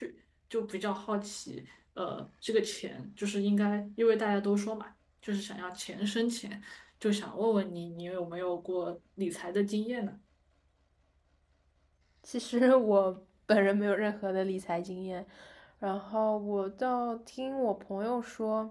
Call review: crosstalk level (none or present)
none